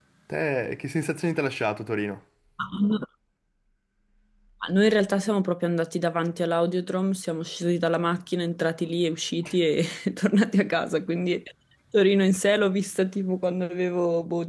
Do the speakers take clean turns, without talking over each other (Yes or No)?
Yes